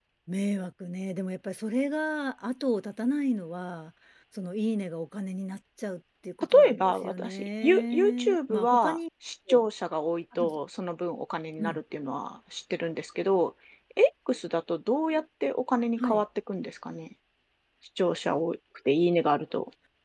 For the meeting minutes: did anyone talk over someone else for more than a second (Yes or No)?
Yes